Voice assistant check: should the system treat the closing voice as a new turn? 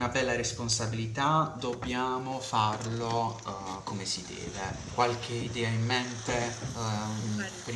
No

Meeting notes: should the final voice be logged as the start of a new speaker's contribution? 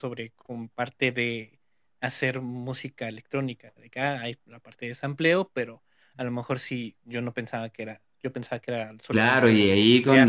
Yes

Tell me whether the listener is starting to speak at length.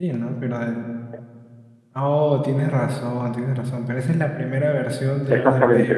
Yes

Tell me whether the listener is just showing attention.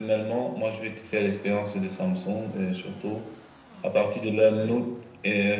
Yes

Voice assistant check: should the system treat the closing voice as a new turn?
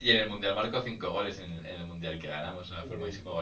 No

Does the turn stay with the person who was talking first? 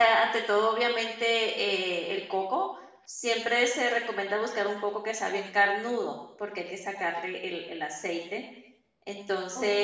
No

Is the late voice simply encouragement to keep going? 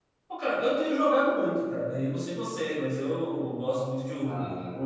Yes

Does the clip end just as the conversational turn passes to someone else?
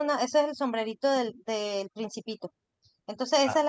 No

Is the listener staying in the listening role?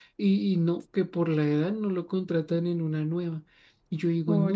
Yes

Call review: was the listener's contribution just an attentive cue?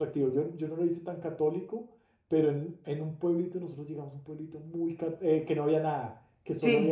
Yes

